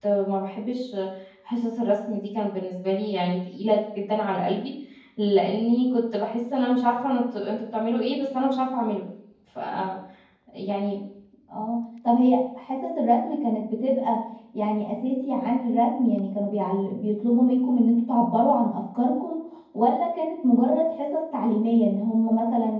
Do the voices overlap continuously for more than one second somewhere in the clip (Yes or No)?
No